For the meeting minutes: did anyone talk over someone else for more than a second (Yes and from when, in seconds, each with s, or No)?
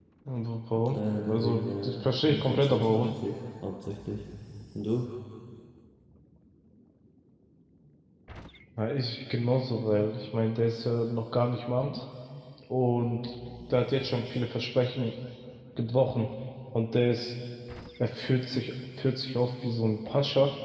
Yes, from 0.9 s